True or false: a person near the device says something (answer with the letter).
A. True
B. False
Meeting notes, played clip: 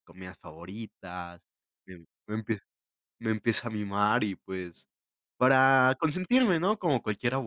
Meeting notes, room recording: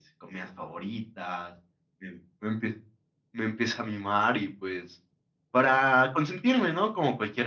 B